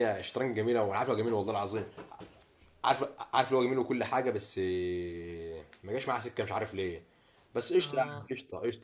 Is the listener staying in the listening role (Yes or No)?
Yes